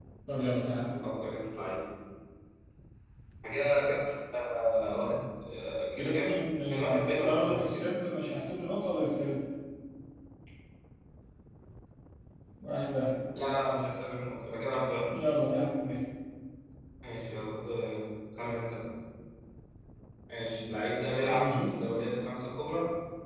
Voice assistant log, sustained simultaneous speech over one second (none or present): present